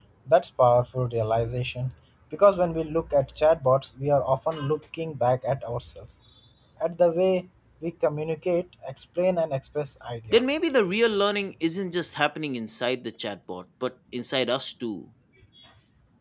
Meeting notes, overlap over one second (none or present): none